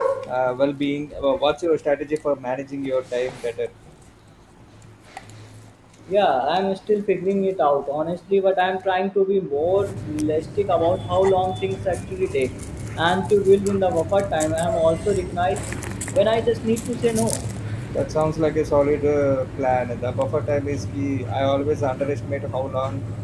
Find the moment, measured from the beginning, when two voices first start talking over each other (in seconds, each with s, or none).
none